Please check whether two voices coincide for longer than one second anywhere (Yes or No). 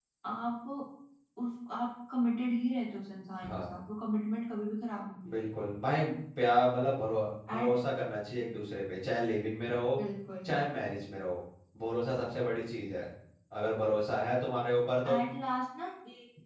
No